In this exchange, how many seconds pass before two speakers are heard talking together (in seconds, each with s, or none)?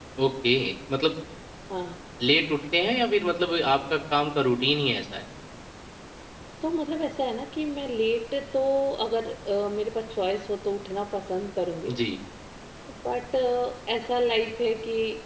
none